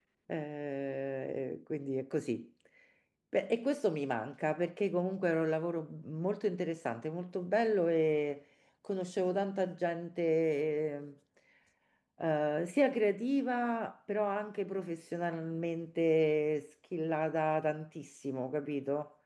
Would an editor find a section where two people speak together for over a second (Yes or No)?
No